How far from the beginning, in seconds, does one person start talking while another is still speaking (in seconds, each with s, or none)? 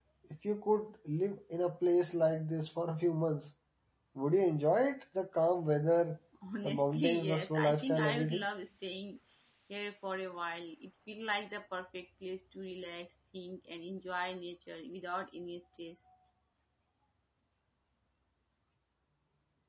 6.6 s